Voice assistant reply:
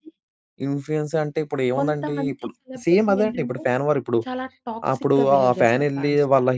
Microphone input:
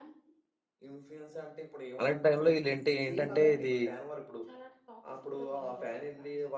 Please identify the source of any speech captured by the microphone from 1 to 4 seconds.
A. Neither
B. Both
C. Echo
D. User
B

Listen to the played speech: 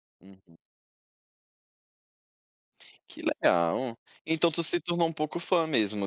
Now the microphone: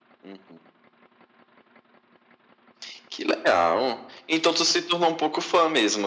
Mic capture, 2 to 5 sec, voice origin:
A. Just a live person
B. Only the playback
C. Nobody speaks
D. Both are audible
B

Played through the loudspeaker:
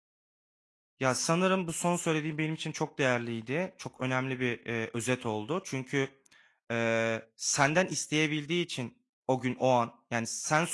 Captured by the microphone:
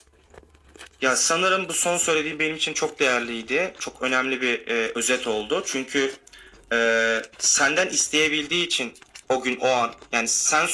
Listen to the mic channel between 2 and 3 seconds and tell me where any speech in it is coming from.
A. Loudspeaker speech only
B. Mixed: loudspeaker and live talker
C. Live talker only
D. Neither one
A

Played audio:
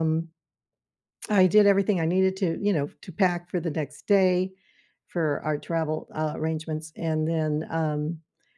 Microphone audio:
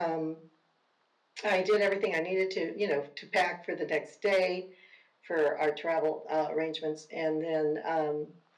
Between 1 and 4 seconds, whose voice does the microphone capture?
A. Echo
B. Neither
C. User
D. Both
A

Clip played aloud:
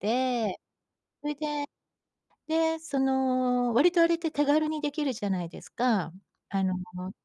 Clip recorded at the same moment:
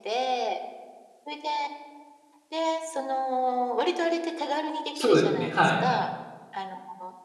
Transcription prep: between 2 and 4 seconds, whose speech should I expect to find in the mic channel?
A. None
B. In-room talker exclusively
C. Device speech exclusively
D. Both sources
C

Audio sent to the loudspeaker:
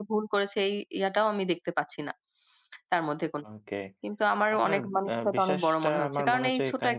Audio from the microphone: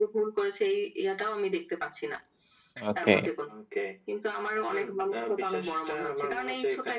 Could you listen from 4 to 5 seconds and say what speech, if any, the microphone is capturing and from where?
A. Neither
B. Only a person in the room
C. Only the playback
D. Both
C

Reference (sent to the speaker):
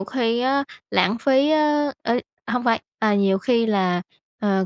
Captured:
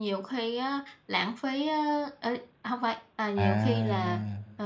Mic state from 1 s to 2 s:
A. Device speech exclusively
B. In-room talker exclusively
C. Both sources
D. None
A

